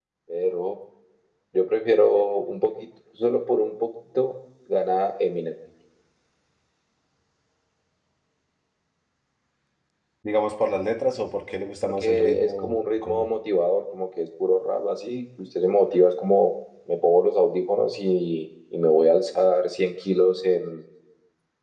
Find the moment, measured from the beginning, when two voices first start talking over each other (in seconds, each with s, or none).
11.8 s